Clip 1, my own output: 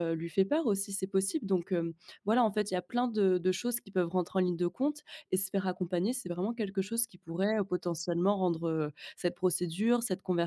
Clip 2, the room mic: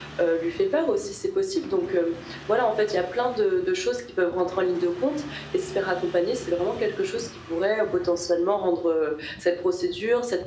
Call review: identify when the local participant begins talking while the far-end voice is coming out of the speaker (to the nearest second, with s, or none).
none